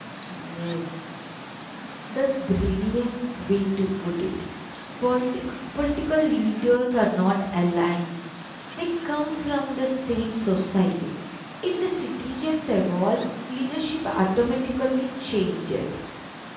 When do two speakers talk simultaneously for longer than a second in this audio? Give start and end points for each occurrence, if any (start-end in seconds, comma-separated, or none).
none